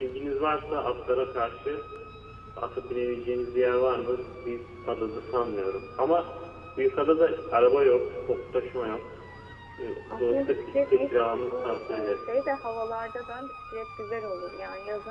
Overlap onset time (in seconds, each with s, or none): 10.1 s